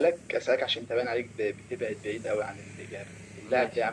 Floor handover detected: No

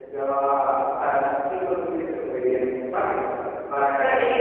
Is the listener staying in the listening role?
No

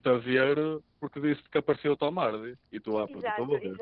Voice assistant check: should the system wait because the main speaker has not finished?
No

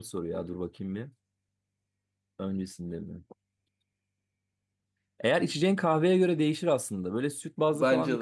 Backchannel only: Yes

